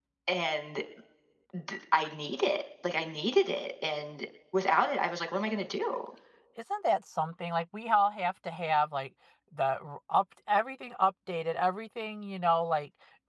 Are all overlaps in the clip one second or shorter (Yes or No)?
Yes